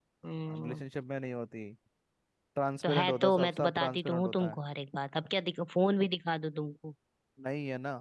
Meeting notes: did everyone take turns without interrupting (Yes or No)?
No